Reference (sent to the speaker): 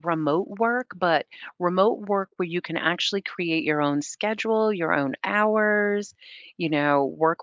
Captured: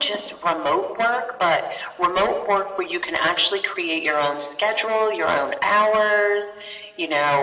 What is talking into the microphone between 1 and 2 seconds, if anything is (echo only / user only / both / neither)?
echo only